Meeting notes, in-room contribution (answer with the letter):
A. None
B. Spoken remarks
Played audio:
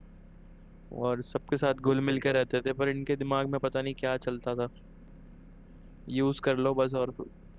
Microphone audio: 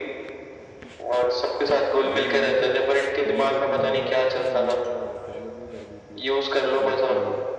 B